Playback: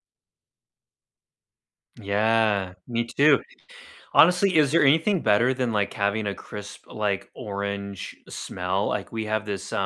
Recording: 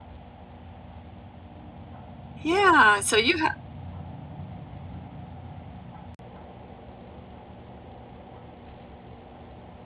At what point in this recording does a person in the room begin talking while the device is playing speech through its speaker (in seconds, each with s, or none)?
2.4 s